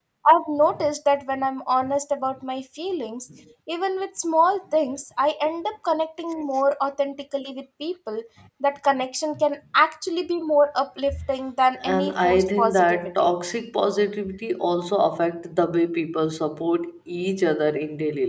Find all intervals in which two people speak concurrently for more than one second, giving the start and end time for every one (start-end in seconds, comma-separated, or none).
11.9-13.3